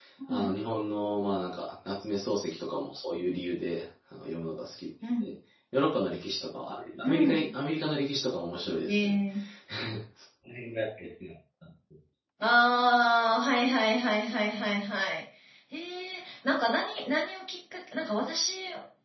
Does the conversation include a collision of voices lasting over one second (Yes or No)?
No